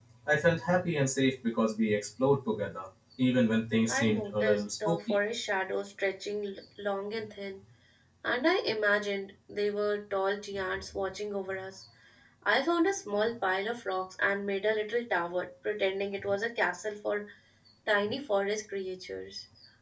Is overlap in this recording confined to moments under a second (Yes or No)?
No